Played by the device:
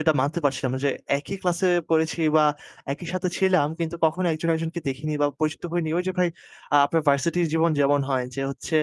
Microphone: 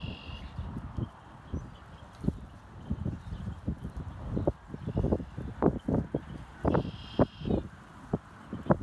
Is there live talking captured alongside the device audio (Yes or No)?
No